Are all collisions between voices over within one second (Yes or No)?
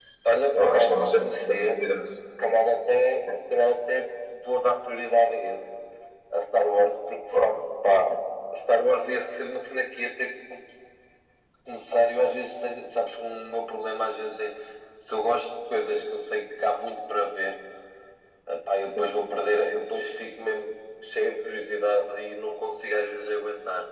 No